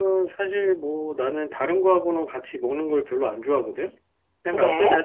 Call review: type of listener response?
listening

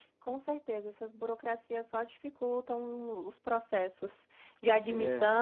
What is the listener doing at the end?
listening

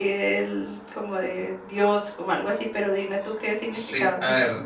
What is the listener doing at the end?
taking over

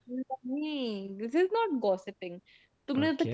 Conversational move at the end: listening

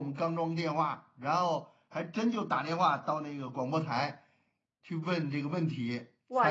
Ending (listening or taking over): taking over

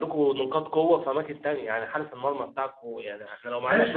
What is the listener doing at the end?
taking over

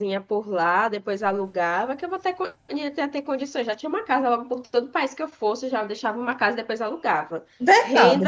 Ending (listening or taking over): taking over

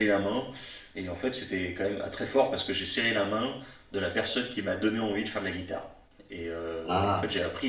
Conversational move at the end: listening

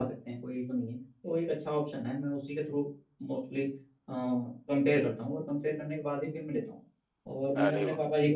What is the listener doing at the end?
listening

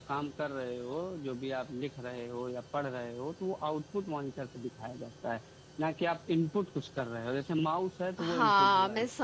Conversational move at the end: taking over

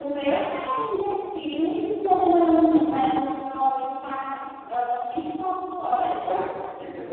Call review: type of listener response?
taking over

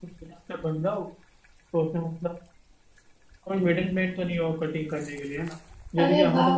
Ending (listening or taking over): taking over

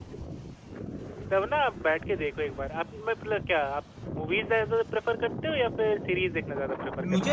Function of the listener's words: taking over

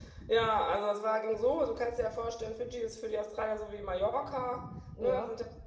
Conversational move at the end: listening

